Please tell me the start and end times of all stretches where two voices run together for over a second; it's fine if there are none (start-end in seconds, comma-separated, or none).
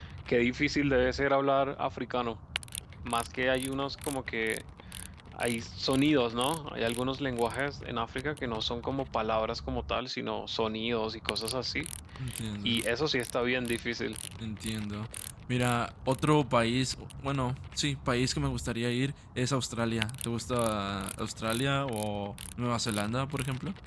none